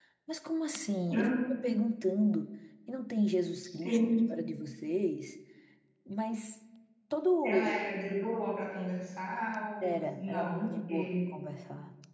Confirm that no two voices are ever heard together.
No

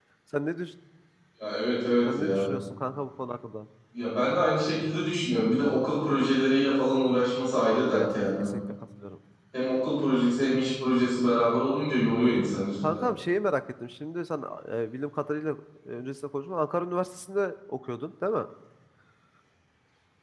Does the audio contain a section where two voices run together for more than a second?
No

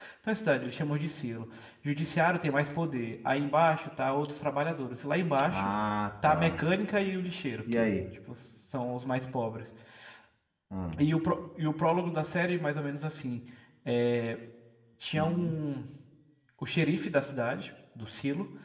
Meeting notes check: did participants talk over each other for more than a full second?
No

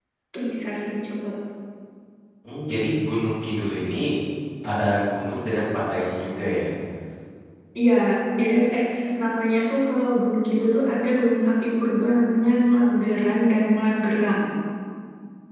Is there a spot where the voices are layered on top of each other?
No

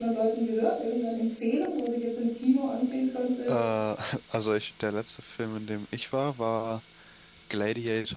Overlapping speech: No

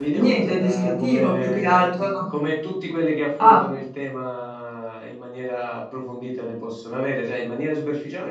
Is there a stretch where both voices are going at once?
Yes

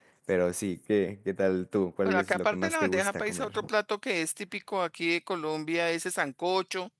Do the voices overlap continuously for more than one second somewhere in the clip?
Yes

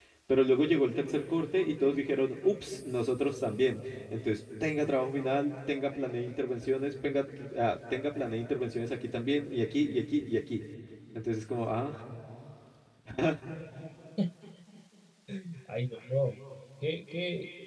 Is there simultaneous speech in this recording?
No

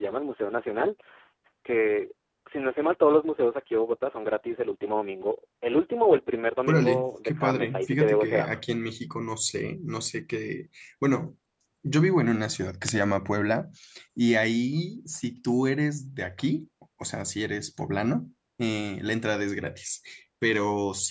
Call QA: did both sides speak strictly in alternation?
No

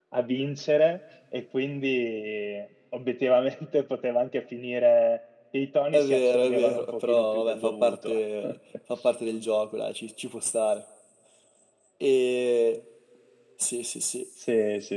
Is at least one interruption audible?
Yes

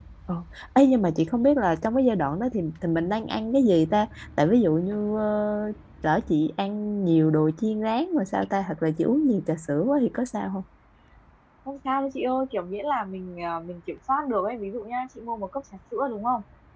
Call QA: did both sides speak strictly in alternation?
Yes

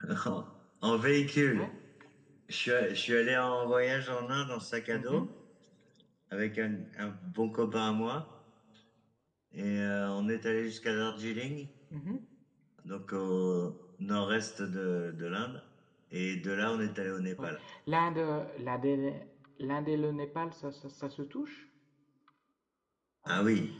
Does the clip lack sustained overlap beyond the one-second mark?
Yes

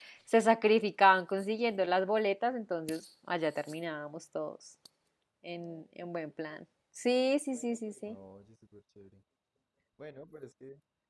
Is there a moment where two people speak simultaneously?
No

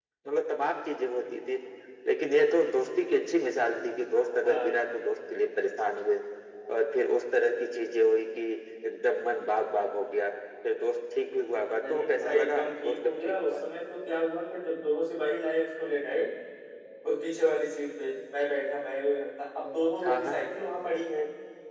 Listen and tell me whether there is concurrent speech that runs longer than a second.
Yes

